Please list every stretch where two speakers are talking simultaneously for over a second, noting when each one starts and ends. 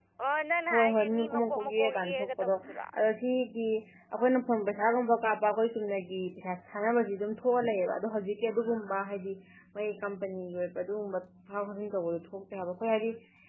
0.7-2.5

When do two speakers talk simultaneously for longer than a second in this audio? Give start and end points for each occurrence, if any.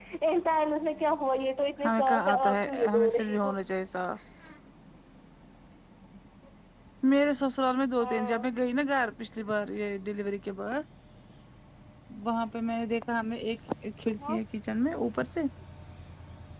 1.8-3.5

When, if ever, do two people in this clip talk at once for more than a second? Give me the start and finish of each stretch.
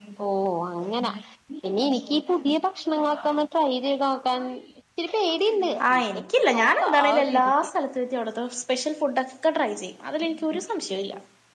5.9-7.5

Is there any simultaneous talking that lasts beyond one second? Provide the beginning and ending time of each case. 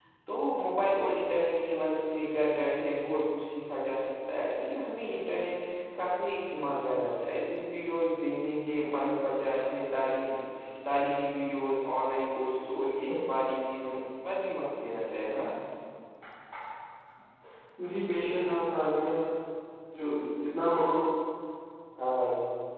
none

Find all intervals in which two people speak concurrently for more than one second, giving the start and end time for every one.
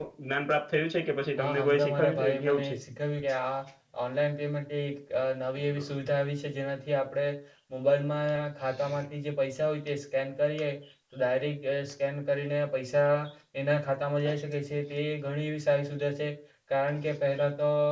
1.4-2.7

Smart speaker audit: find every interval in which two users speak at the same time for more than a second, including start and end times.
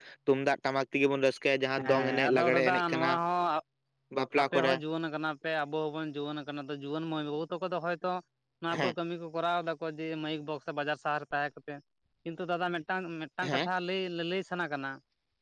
1.9-3.1

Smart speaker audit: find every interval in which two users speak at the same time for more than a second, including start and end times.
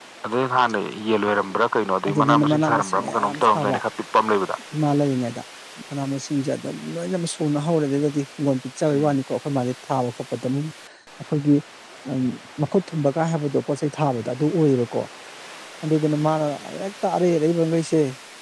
2.1-3.8

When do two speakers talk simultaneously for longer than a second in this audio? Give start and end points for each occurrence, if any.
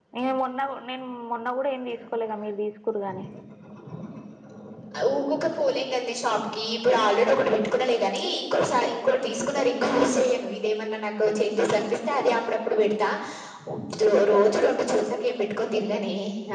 none

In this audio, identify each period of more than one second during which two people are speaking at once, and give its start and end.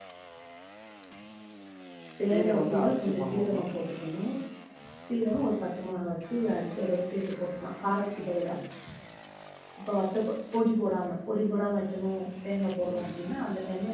2.3-3.7

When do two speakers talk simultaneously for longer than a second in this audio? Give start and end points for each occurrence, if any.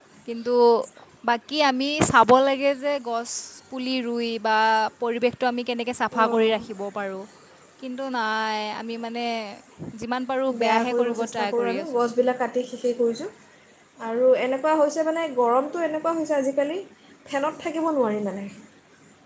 10.6-11.8

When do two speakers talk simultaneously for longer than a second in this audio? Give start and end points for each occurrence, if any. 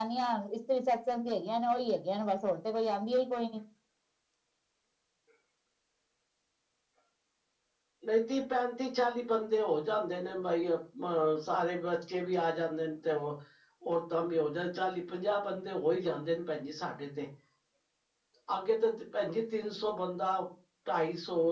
none

